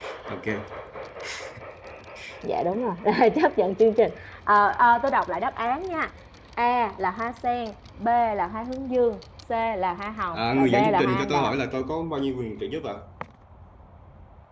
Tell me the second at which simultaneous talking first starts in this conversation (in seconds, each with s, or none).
10.3 s